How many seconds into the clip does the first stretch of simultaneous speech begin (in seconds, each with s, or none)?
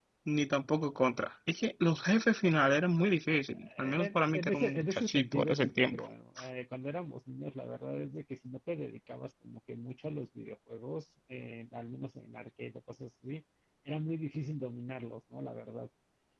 3.5 s